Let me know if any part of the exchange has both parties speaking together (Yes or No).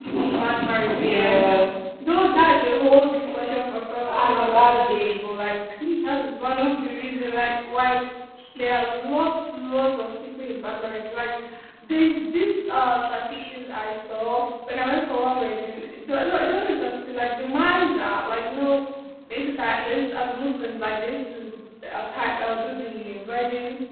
Yes